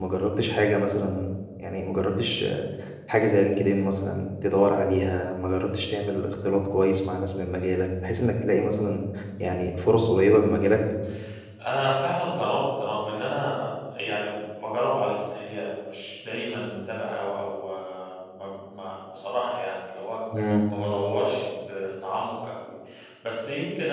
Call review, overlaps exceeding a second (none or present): none